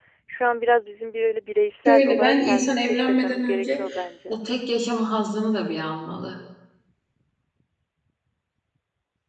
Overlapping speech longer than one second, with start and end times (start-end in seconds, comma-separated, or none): 1.9-3.8